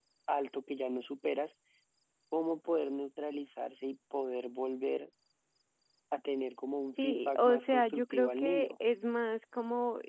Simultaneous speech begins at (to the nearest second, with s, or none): 7 s